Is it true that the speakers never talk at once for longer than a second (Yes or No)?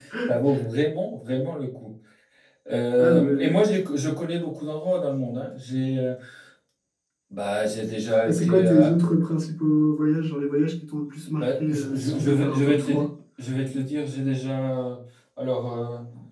No